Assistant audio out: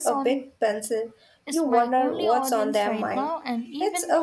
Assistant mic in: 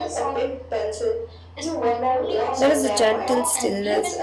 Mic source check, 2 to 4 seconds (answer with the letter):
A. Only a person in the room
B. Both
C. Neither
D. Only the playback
B